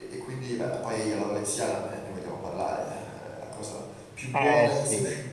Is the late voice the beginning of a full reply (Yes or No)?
No